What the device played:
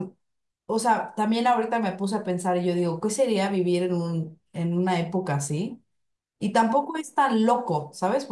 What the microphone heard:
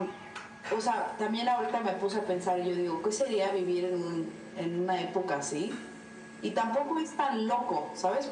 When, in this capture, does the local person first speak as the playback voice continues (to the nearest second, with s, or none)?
none